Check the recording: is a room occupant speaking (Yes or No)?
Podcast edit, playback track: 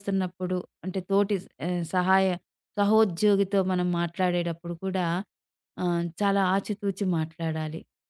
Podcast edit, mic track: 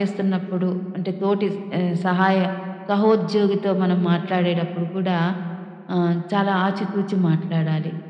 No